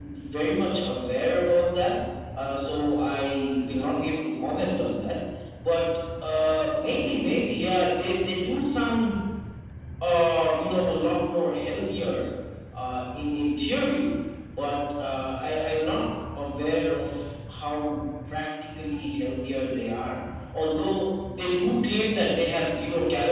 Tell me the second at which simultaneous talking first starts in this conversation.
none

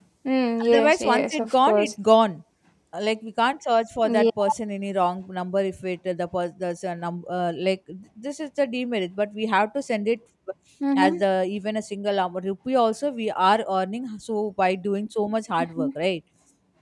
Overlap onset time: 0.6 s

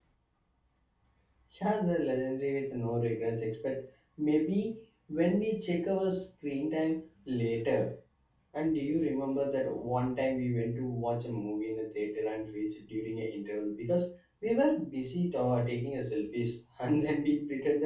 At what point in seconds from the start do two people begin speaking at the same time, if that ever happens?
none

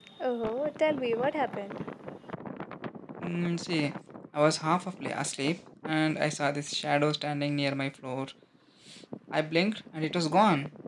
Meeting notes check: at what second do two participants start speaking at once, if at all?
none

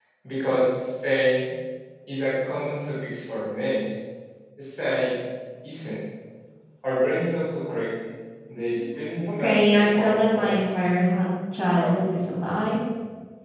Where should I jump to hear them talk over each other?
9.4 s

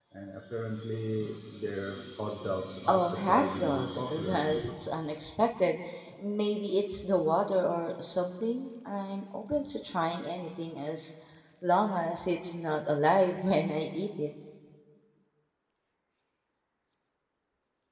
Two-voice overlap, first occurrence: 2.9 s

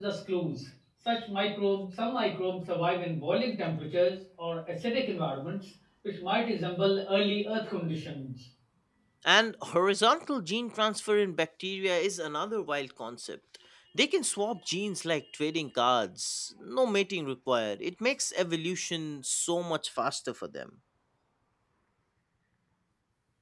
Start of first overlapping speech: none

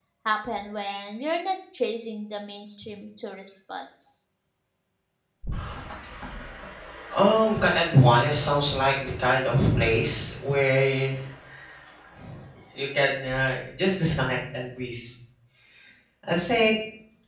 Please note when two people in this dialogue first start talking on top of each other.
none

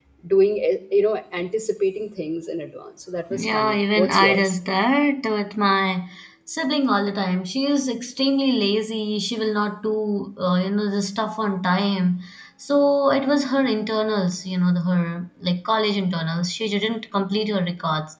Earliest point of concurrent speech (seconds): 3.3 s

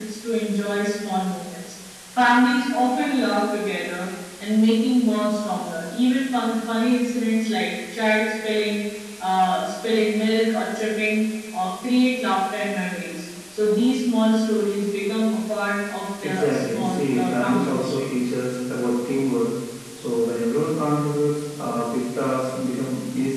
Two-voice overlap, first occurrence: 16.2 s

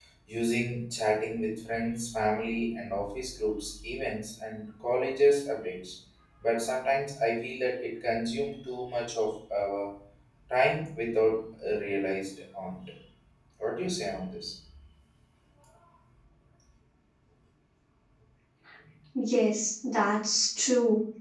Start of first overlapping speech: none

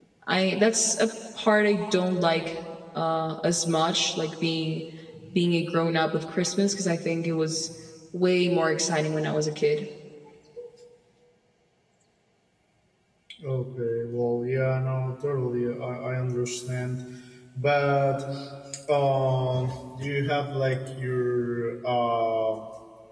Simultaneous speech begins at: none

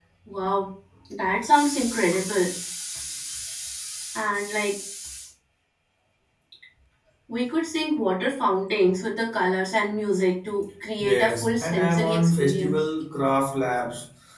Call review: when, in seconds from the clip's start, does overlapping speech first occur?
11.0 s

